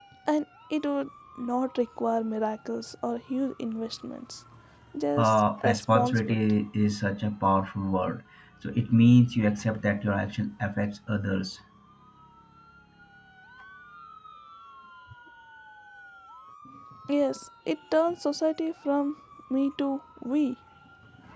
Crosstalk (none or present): present